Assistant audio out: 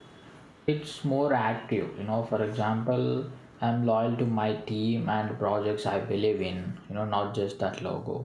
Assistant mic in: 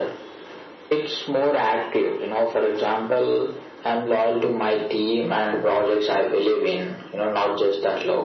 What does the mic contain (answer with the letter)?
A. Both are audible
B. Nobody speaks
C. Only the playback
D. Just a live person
C